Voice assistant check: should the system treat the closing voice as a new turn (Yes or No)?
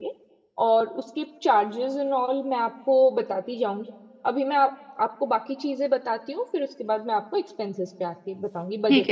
Yes